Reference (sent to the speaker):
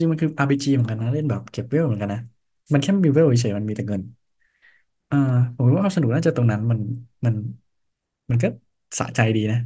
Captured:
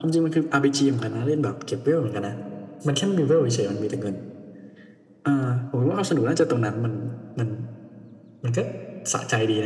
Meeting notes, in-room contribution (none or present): none